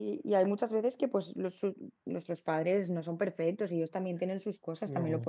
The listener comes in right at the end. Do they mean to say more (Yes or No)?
No